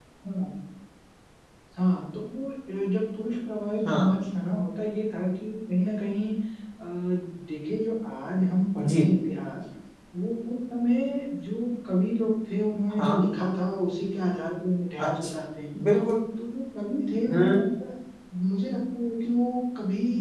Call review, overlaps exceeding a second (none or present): none